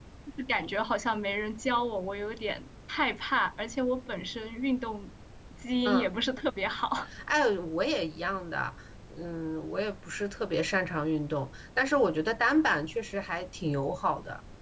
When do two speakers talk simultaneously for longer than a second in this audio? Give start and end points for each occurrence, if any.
none

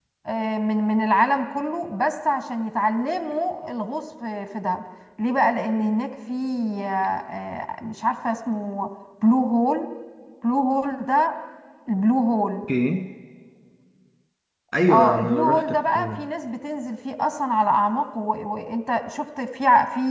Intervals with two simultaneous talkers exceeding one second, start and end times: 14.9-16.2

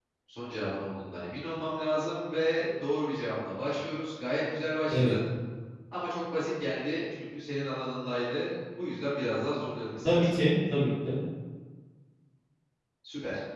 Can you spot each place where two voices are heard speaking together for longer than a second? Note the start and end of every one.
none

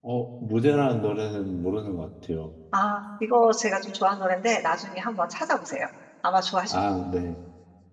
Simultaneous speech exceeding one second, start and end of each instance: none

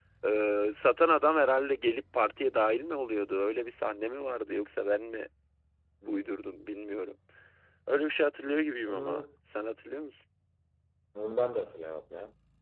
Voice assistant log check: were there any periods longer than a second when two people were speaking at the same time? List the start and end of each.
none

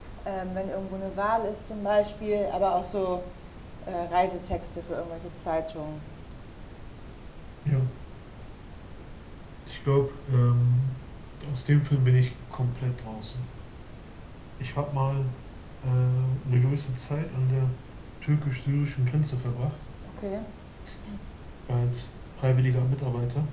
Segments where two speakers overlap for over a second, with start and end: none

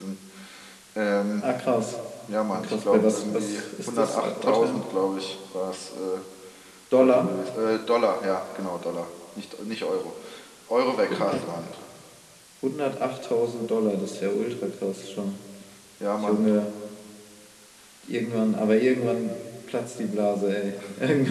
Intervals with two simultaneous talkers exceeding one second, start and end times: 2.5-4.8

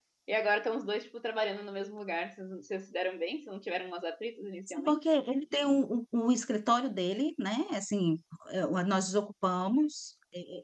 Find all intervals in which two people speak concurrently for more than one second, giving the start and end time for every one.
none

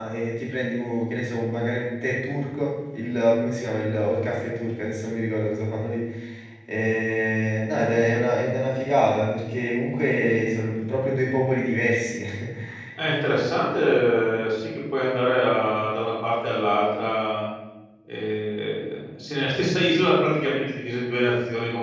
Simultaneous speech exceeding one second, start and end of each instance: none

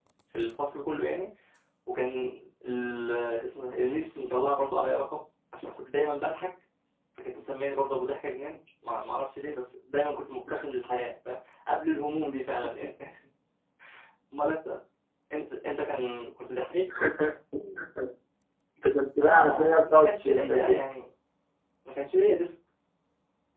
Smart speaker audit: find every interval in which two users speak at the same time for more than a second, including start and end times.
19.2-20.8

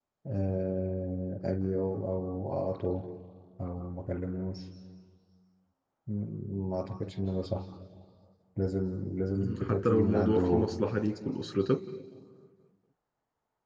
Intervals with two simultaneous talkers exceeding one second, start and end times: 9.4-10.7

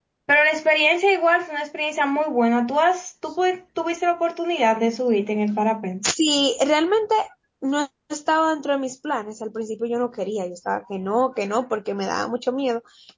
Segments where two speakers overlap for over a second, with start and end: none

